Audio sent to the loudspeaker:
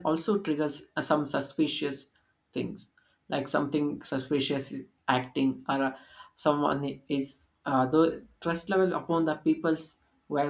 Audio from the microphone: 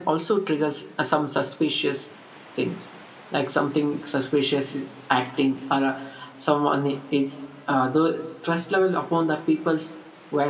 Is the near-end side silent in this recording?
Yes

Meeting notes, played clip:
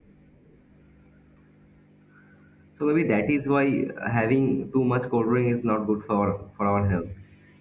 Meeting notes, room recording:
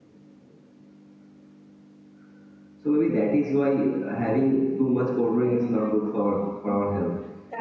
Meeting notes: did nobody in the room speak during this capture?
No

